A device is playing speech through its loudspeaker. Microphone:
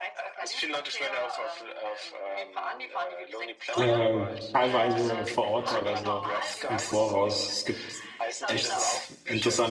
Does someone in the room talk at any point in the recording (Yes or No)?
Yes